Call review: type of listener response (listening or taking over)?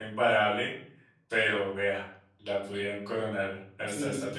taking over